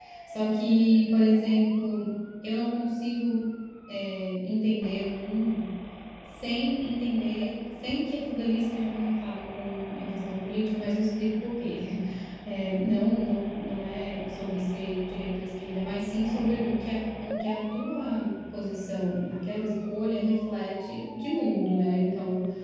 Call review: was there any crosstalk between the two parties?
No

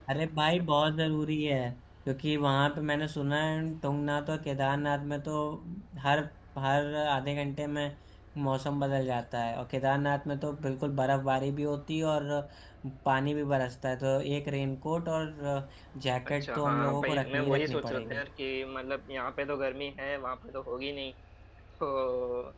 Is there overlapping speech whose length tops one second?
Yes, from 16.3 s

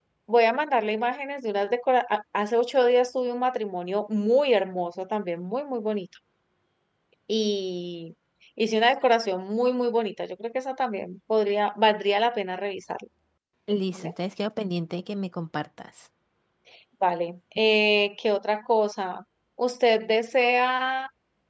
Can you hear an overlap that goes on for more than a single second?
No

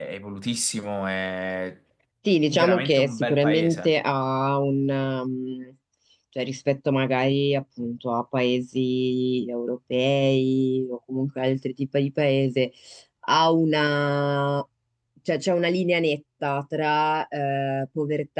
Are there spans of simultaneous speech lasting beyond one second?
Yes, from 2.5 s

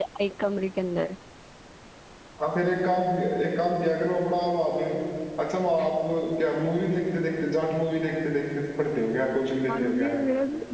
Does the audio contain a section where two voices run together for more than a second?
No

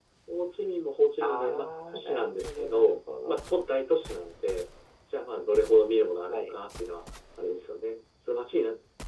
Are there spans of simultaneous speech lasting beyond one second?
Yes, from 1.2 s

